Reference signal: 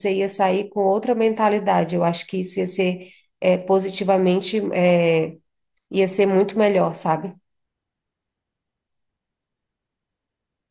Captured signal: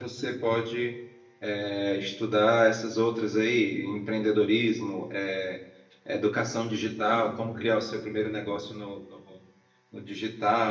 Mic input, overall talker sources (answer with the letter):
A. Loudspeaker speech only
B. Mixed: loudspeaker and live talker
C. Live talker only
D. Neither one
C